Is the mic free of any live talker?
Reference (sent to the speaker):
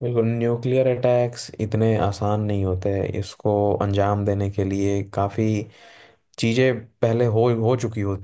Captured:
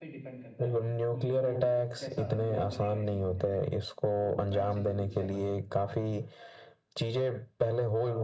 No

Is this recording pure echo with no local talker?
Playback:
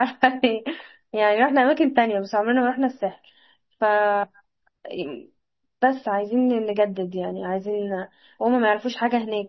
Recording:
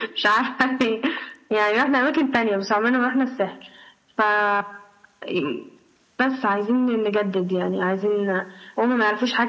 Yes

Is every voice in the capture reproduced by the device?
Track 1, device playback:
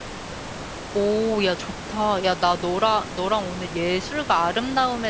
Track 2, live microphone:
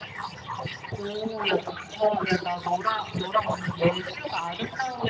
Yes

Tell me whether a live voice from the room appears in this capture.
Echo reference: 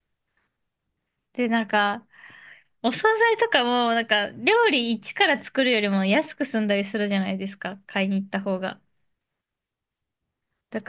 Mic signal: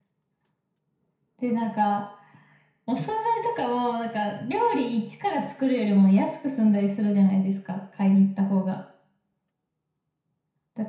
No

